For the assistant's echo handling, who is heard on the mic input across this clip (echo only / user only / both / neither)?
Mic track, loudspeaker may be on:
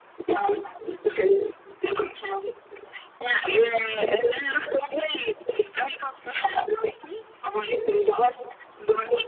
echo only